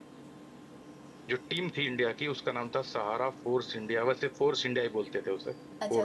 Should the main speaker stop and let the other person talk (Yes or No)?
Yes